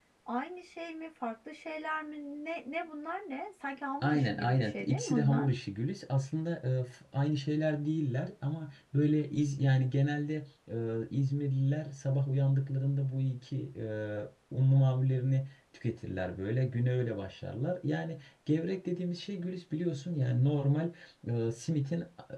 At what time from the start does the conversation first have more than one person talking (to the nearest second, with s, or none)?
4 s